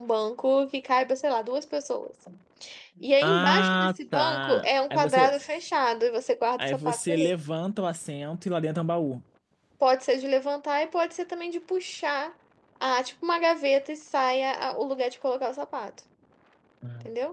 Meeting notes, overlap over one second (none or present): present